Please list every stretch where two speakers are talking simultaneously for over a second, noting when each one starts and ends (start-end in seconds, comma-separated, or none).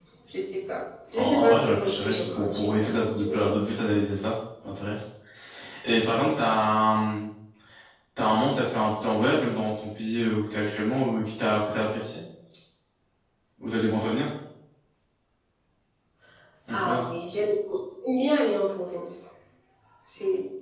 1.1-3.5